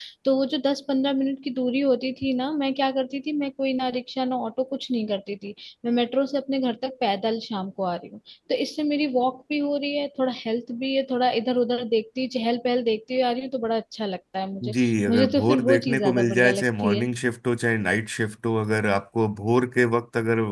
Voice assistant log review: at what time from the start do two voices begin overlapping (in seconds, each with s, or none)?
14.6 s